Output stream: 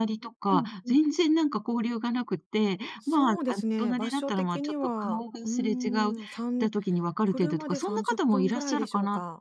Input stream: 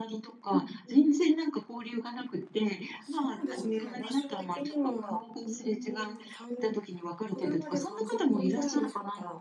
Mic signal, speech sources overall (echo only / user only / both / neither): both